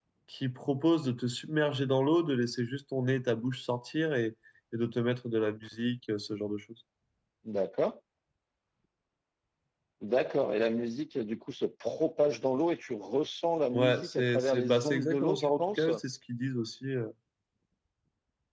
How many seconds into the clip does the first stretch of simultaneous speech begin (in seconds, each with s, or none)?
13.7 s